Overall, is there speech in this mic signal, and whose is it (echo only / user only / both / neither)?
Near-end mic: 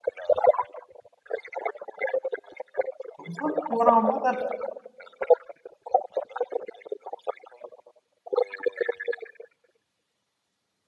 both